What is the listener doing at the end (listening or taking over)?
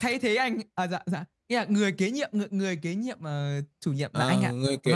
taking over